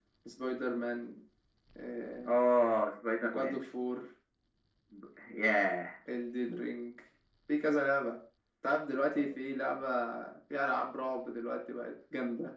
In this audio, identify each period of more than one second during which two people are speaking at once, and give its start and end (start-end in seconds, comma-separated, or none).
none